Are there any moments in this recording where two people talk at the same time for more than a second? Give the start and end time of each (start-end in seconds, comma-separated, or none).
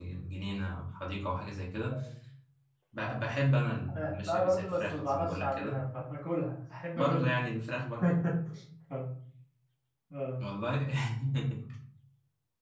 4.0-5.8